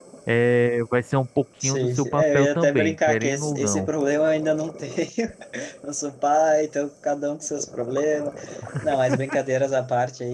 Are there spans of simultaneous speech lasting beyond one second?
Yes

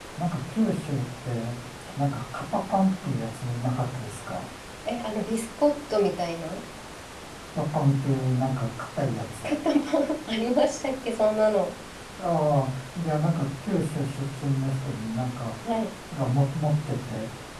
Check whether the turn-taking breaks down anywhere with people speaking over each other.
No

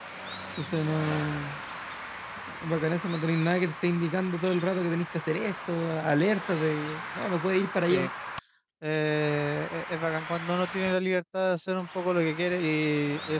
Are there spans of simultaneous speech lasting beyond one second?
No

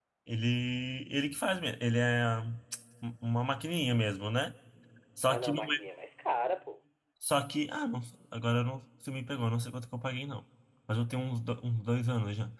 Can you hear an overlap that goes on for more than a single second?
No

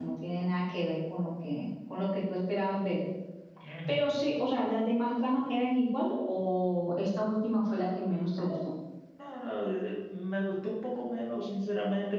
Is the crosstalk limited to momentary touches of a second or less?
Yes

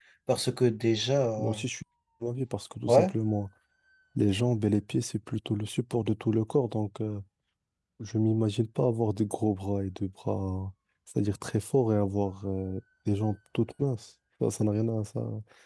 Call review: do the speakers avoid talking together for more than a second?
Yes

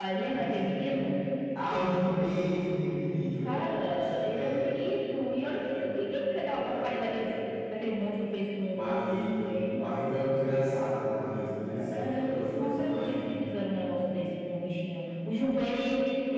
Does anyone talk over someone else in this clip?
Yes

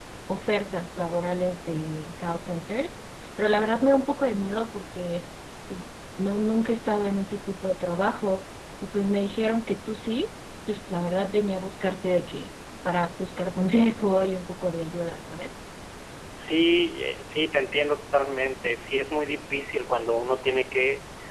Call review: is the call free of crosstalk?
Yes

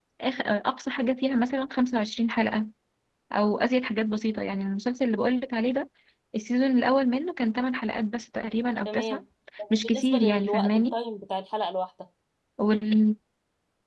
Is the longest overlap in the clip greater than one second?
Yes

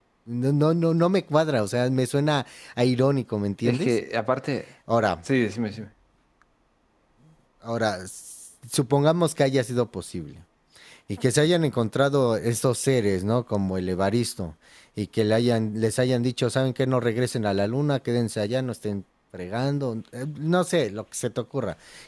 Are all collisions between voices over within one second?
Yes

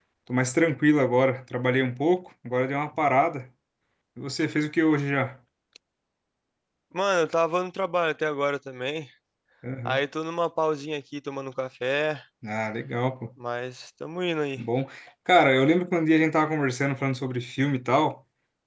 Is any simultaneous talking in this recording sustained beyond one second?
No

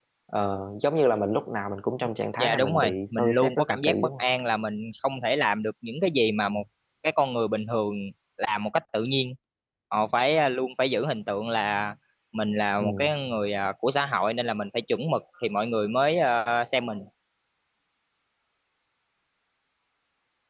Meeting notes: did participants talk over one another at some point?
Yes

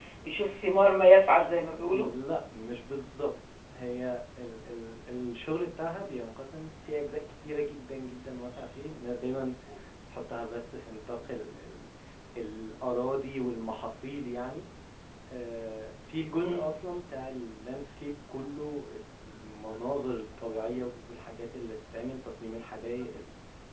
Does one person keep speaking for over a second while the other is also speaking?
No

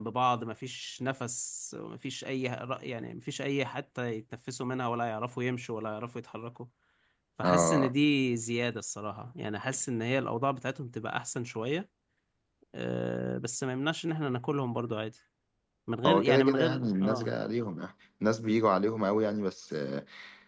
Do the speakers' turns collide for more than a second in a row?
Yes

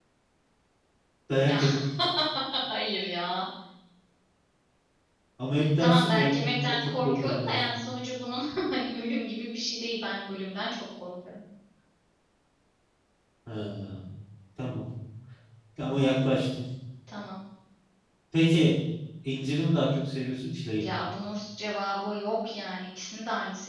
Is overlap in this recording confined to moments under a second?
No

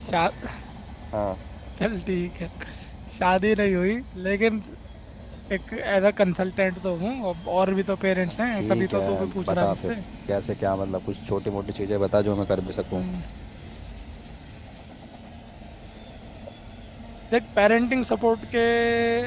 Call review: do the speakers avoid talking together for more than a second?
No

